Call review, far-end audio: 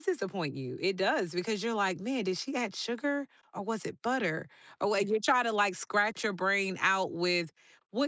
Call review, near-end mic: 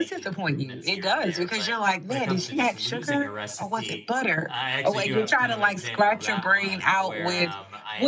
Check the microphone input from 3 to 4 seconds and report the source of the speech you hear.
both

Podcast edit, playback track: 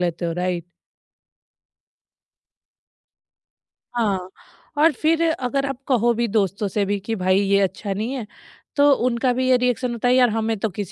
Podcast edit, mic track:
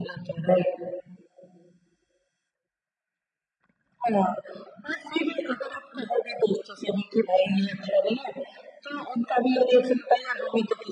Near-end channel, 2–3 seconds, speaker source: neither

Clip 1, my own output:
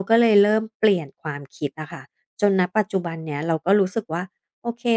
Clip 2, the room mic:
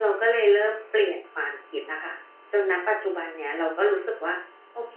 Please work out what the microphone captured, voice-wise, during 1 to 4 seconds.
echo only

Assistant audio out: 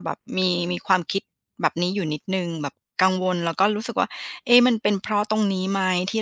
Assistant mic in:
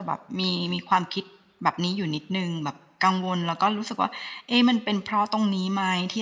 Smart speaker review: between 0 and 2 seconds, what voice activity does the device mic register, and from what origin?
echo only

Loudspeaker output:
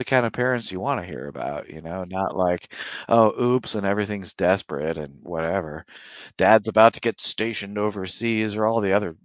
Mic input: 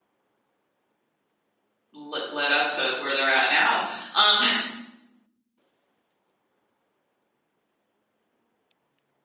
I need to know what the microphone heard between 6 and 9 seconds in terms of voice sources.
neither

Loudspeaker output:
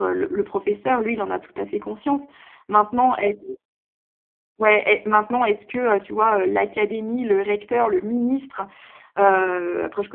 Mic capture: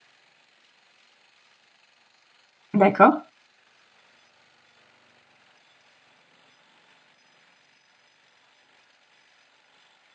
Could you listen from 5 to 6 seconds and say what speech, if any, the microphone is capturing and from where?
neither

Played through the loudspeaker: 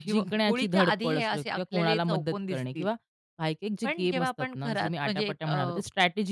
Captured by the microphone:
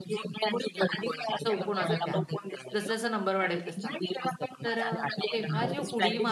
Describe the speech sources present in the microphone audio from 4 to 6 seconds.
both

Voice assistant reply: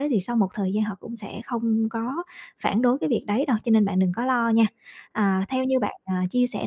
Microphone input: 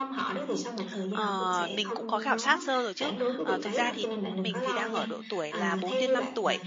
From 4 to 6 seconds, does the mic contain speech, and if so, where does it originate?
both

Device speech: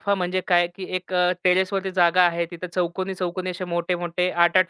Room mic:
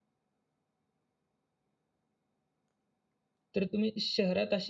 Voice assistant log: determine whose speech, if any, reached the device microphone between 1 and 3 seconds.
neither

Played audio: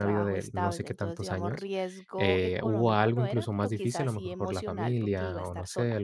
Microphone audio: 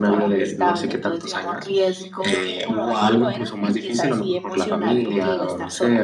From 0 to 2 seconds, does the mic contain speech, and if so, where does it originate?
echo only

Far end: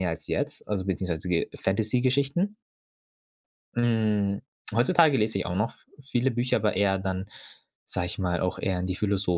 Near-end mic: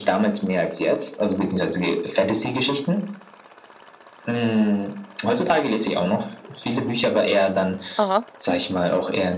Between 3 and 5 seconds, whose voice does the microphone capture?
echo only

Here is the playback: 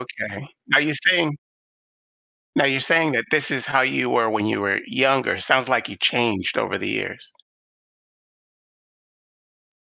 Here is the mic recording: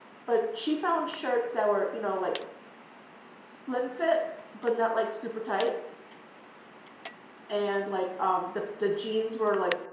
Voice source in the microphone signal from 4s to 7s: user only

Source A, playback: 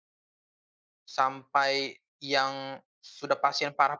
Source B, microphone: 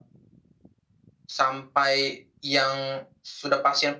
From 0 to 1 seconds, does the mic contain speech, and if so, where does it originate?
neither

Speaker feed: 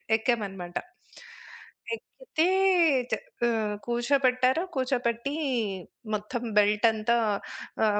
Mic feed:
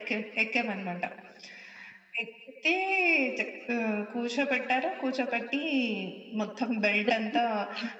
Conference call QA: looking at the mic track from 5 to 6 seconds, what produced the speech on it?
echo only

